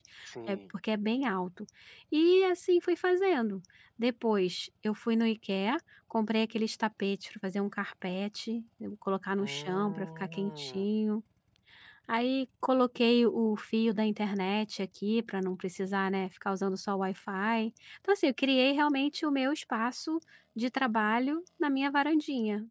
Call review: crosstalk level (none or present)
present